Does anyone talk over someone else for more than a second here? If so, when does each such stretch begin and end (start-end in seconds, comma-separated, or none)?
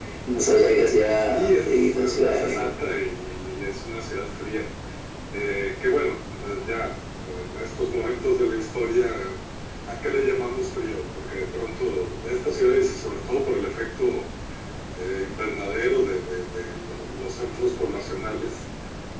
1.3-2.7